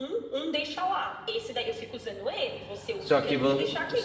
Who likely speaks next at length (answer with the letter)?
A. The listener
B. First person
A